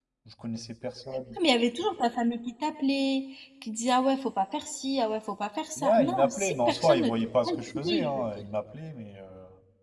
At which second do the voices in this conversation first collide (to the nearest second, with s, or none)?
6 s